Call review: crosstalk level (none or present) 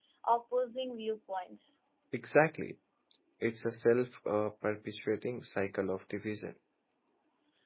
none